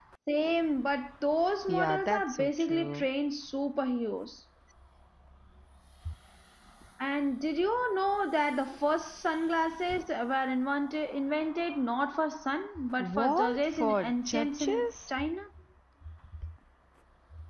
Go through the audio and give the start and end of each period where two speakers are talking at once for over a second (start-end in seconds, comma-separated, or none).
1.7-3.0, 13.0-15.1